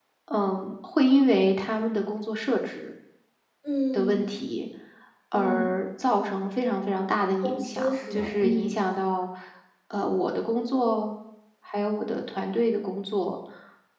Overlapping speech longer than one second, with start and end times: 7.4-8.7

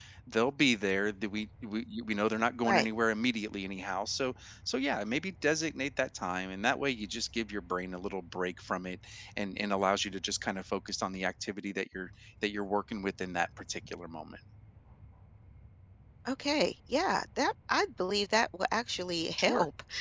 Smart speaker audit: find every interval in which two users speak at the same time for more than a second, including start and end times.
none

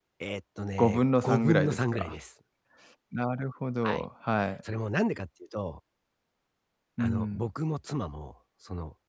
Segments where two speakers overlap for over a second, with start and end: 0.8-2.1

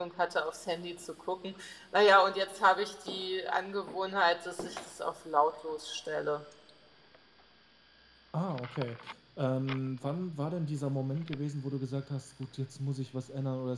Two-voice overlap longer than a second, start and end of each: none

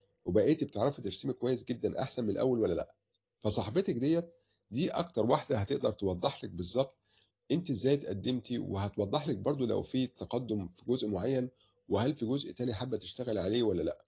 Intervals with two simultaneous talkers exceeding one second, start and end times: none

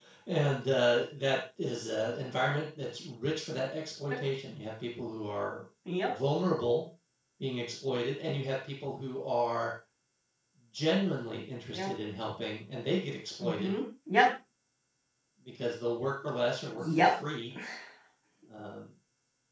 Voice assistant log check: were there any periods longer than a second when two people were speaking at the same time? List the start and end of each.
none

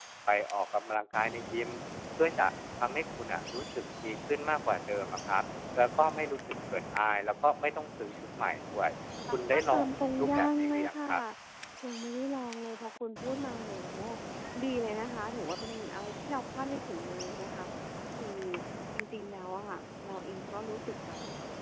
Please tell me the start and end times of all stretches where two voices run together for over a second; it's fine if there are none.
9.3-11.0

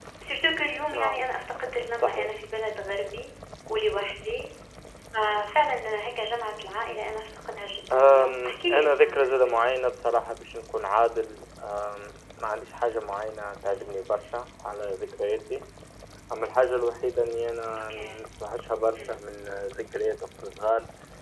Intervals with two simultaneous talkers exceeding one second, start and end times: 7.9-9.5

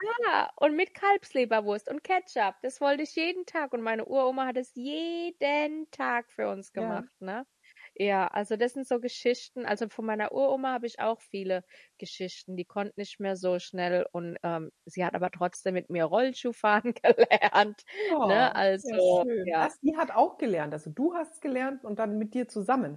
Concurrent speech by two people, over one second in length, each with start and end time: 18.2-19.6

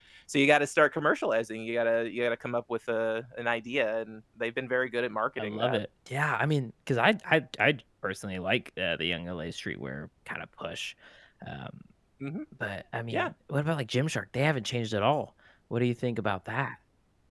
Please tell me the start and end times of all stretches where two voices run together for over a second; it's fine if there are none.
none

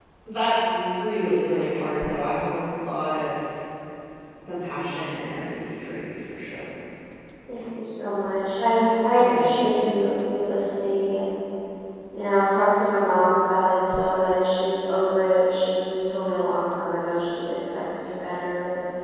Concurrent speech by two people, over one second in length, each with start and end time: none

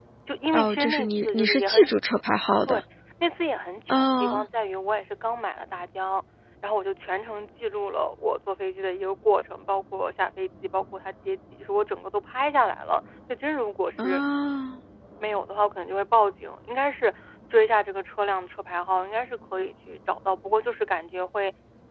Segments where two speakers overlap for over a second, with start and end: 0.5-1.9

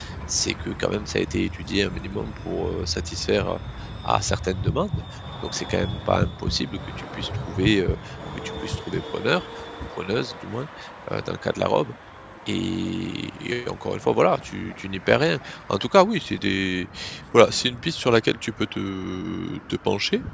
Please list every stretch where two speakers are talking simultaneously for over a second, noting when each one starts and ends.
none

